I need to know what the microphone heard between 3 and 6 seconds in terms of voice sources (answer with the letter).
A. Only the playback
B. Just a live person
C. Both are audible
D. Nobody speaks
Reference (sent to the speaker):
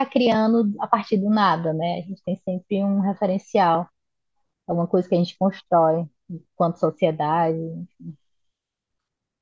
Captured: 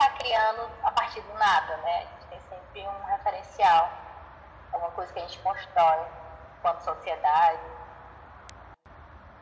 A